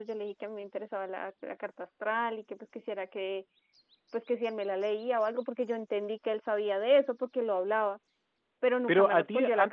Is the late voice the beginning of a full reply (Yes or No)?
Yes